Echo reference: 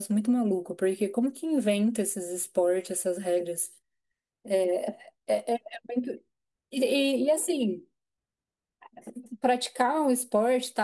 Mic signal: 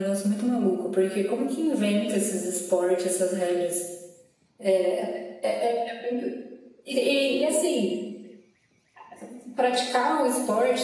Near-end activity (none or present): none